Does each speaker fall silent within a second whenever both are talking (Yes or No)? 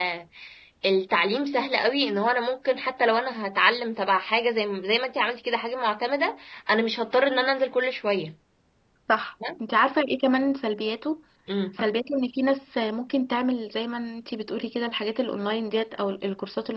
Yes